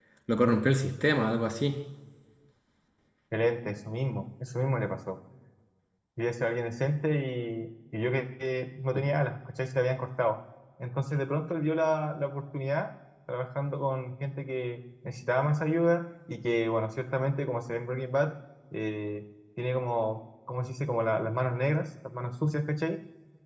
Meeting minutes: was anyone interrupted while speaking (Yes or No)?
No